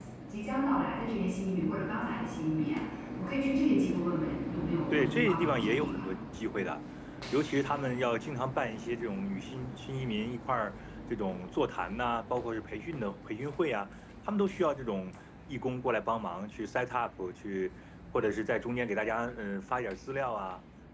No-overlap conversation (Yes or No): No